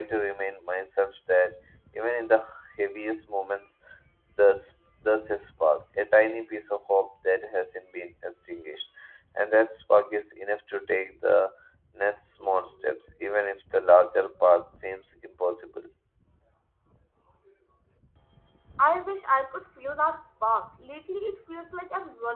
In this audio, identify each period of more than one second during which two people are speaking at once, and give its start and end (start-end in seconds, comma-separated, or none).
none